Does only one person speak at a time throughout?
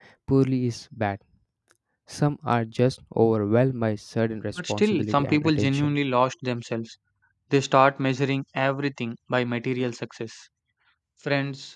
No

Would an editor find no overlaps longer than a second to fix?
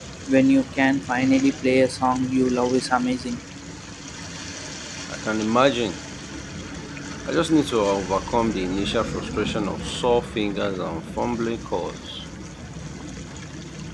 Yes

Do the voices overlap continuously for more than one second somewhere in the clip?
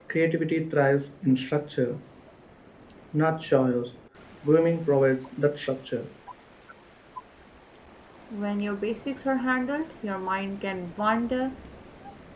No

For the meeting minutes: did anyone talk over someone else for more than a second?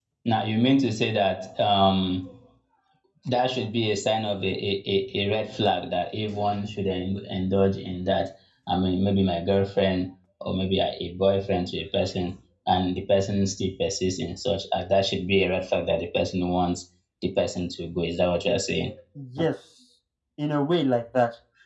No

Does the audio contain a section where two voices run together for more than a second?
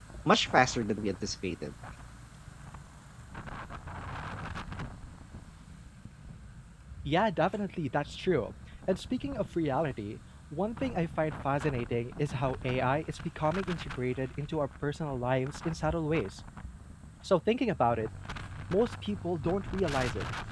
No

